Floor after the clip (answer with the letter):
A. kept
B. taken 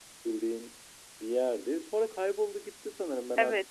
B